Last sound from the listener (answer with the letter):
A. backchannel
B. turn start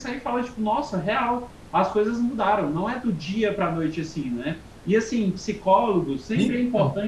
A